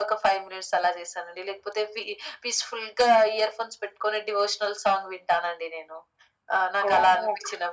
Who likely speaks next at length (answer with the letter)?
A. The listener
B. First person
A